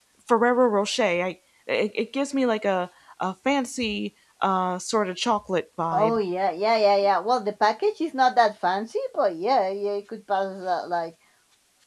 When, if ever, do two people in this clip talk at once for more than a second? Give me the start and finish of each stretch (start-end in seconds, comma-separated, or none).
none